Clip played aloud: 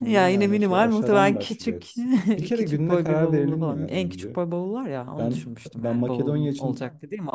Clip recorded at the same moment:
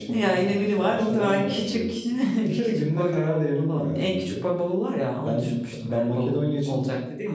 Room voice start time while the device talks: none

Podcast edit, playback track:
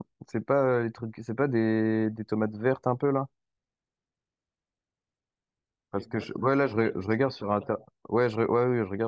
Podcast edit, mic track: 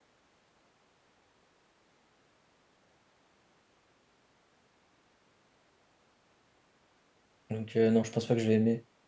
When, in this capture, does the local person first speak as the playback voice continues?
7.5 s

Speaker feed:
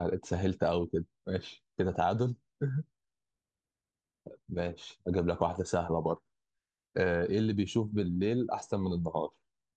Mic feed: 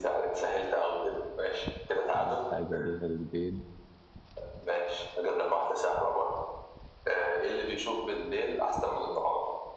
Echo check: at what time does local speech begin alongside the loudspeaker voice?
2.1 s

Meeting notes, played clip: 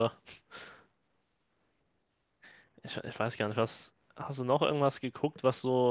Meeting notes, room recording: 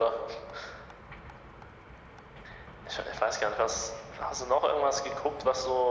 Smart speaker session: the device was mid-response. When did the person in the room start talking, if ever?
none

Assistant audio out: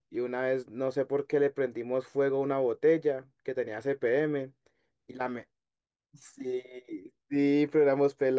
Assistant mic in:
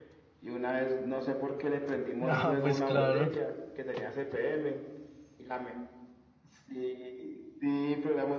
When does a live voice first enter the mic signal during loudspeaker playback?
2.3 s

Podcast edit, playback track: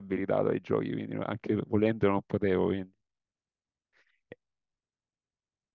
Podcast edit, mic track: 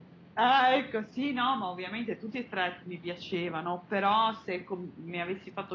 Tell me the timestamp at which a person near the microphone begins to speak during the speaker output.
0.4 s

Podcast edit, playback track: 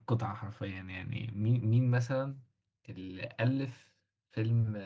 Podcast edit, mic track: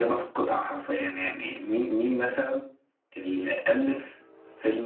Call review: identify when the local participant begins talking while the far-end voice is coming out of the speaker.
none

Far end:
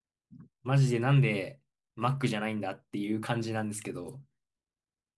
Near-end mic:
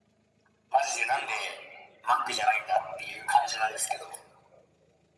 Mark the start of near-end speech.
none

